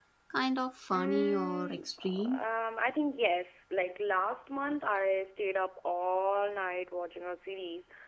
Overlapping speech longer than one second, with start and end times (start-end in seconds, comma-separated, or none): 0.9-2.4